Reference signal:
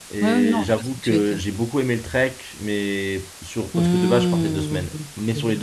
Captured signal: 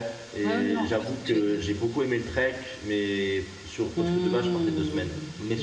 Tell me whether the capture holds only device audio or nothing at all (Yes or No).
Yes